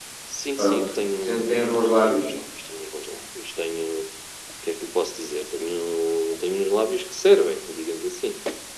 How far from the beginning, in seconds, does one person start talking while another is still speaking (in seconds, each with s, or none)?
0.6 s